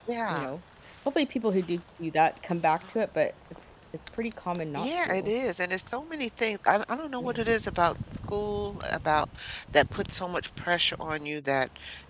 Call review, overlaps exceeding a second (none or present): none